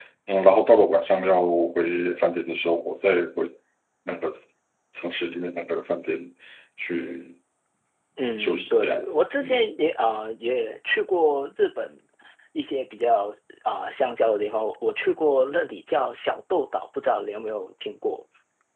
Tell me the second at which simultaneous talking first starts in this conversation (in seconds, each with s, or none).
8.4 s